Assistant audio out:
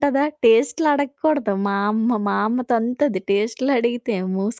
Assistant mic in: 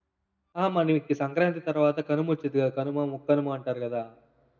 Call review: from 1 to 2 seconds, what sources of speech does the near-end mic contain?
user only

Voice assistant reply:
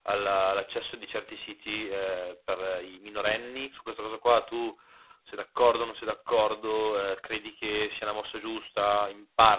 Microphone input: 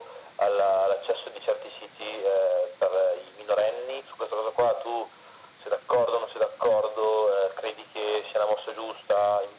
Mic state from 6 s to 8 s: echo only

